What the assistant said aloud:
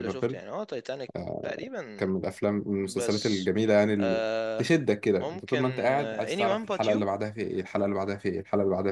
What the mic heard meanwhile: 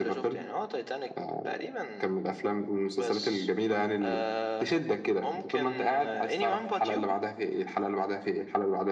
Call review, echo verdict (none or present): present